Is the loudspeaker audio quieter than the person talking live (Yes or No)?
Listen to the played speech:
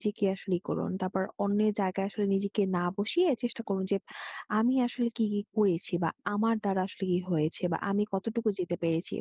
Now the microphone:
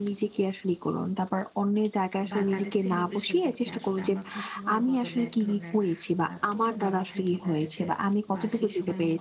No